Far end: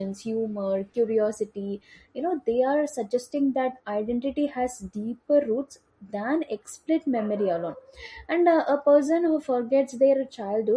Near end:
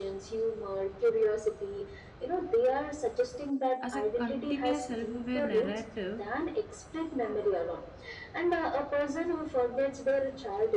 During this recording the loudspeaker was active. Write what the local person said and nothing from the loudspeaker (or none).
as a continuous self-aware narrative